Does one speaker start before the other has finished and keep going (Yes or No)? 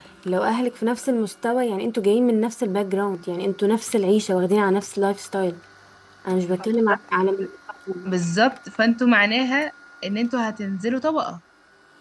No